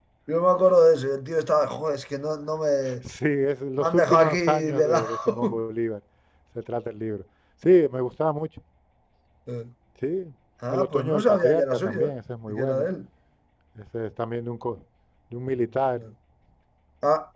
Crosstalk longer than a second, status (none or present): present